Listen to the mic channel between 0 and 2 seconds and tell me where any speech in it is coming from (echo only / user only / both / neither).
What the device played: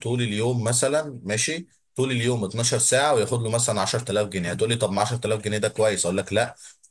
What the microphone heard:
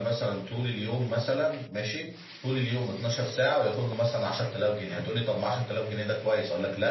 echo only